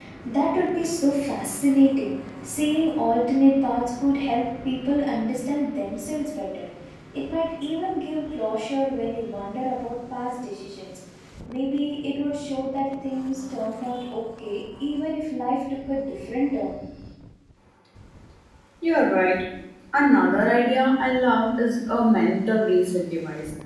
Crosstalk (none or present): none